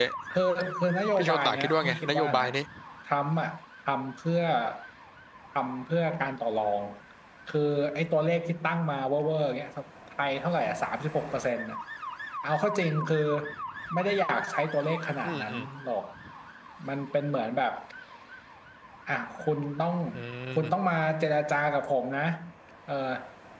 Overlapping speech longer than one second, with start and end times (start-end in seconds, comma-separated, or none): 1.2-2.5